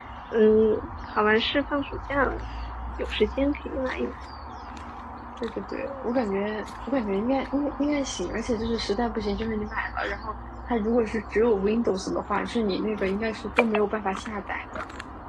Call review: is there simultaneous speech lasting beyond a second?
No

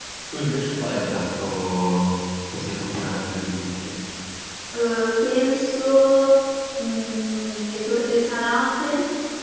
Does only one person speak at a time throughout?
Yes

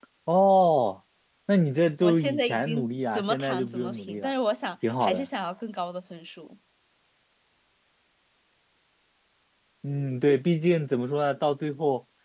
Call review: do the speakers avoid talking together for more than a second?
No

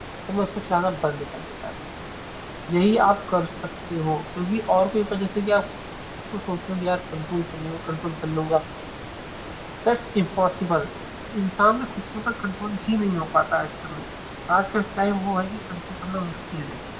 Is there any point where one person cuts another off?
No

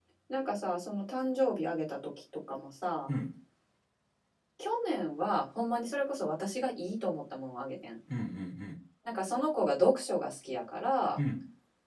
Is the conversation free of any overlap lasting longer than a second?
Yes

